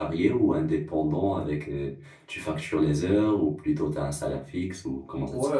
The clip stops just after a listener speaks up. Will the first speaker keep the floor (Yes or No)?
No